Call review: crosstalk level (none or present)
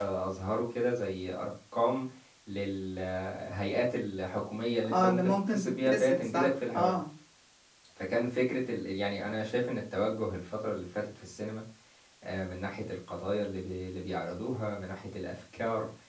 present